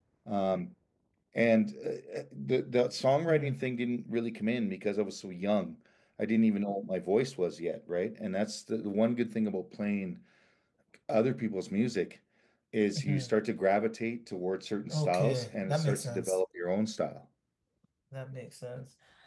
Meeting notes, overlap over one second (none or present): present